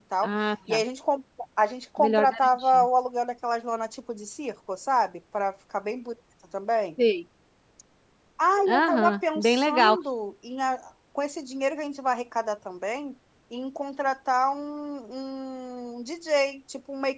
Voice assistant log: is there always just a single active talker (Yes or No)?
No